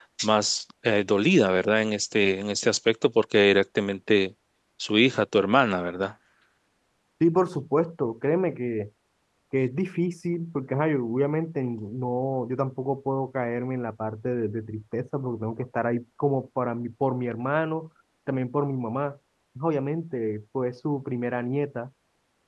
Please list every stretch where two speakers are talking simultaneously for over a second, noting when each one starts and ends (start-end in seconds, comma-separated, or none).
none